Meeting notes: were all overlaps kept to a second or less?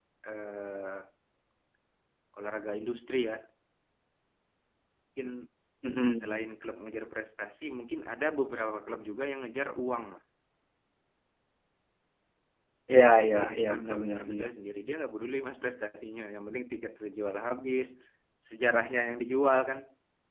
No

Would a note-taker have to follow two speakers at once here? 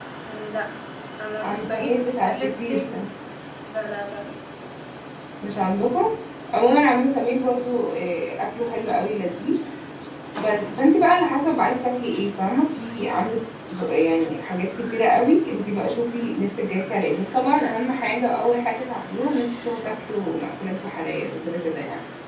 Yes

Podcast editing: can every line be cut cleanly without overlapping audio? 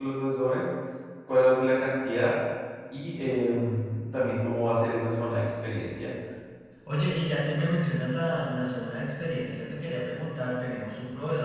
Yes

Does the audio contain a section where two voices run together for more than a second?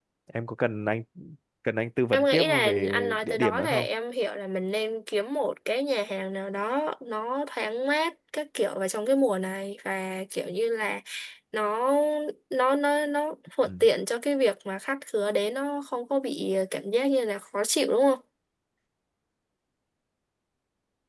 Yes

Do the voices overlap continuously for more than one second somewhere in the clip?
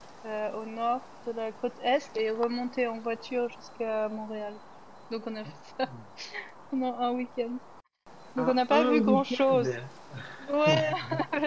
Yes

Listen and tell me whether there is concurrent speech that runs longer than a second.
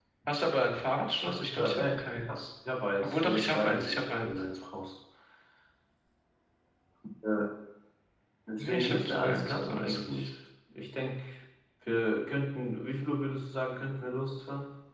Yes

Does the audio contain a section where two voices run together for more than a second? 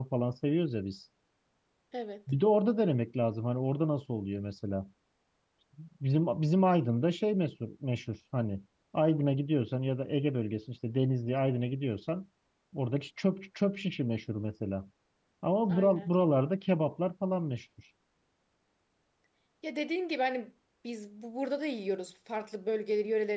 No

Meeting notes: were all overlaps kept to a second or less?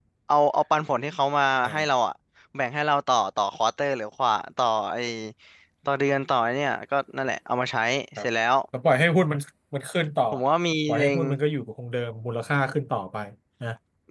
Yes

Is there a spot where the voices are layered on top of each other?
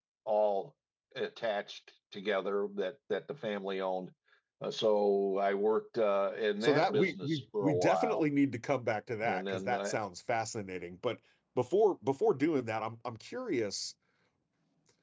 Yes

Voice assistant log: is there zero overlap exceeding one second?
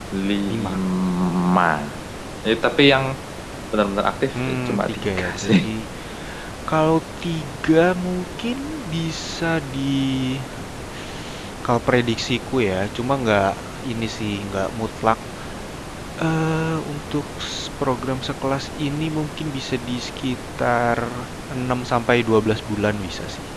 No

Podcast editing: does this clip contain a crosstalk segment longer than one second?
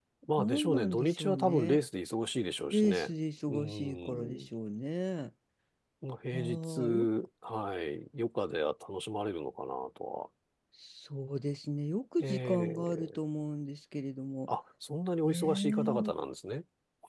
Yes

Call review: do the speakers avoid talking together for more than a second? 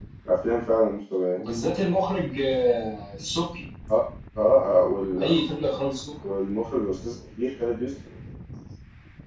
Yes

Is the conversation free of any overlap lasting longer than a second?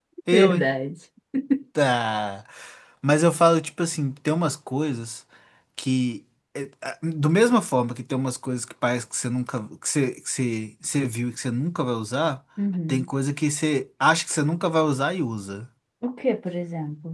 Yes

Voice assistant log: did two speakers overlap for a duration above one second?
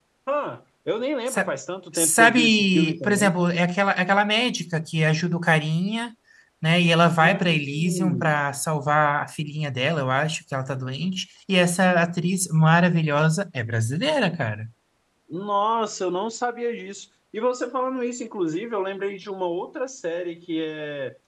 Yes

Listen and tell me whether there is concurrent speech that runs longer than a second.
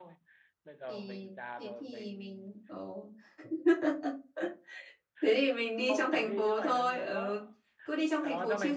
Yes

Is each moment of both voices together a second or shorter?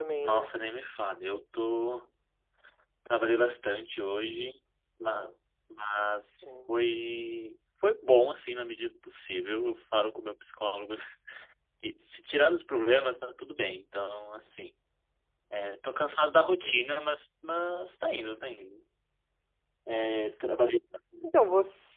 Yes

